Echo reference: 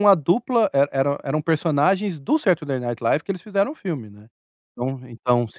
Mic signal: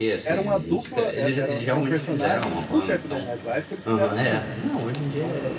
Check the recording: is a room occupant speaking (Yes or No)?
Yes